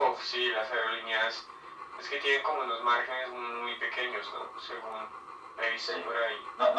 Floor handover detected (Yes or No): Yes